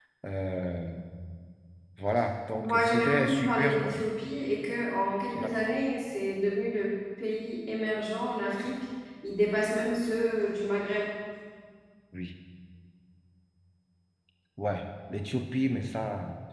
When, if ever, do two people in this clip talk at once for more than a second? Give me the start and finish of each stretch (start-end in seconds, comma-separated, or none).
2.6-4.0